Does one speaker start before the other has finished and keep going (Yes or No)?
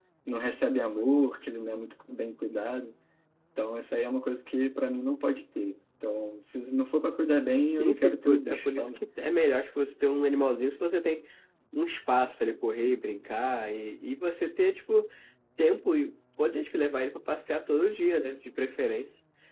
Yes